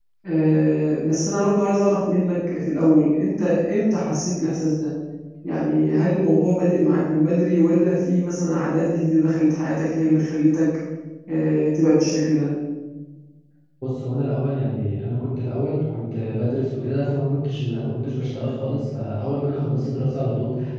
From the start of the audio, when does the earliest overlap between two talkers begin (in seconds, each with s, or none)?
none